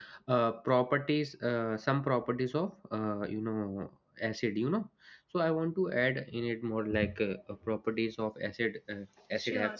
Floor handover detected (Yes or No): No